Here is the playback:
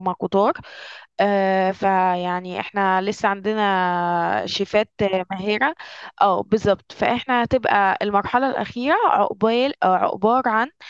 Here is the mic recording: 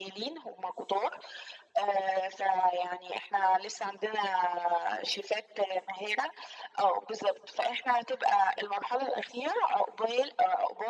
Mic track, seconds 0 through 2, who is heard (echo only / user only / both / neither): echo only